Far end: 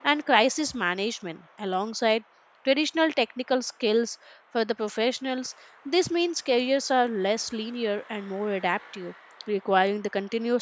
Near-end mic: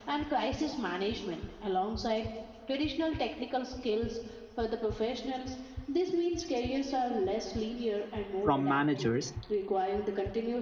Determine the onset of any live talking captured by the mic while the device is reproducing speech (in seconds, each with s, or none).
8.4 s